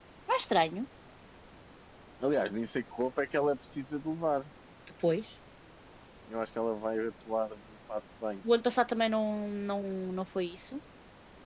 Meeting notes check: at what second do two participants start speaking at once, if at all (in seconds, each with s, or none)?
none